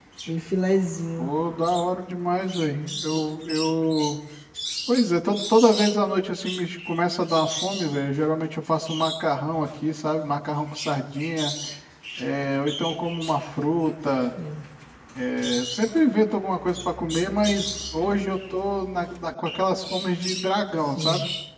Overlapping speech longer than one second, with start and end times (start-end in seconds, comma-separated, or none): none